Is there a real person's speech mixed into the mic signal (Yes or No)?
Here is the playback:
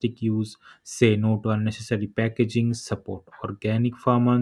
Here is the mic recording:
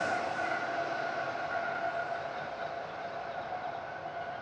No